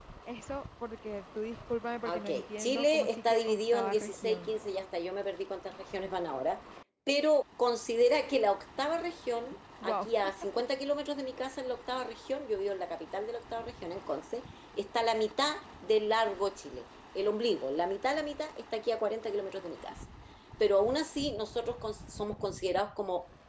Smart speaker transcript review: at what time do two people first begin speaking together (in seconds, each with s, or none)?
2.0 s